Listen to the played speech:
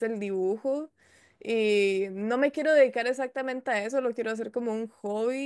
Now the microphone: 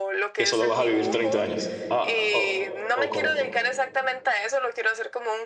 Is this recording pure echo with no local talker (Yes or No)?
No